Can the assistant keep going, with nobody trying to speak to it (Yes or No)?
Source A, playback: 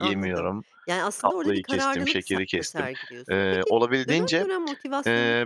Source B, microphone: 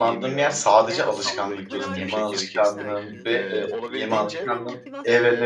No